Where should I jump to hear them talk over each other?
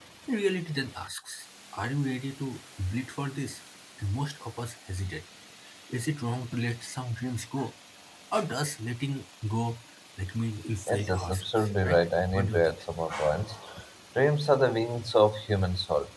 10.9 s

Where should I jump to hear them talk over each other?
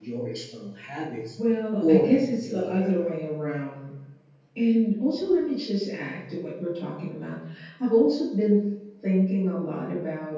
1.8 s

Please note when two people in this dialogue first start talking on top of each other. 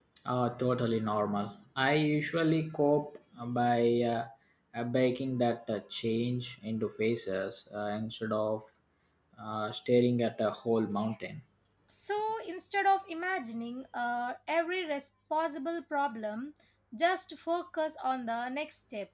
none

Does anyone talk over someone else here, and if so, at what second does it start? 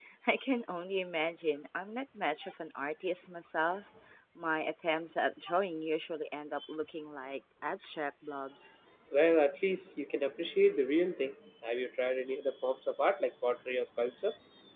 none

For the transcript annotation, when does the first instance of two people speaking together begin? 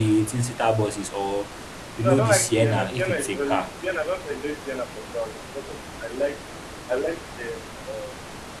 2.0 s

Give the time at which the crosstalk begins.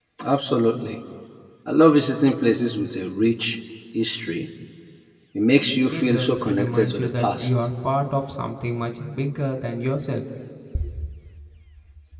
5.9 s

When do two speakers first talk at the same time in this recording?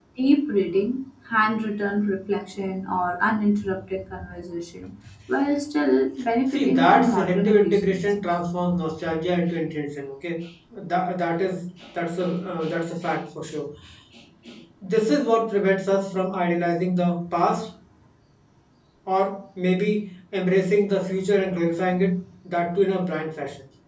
6.5 s

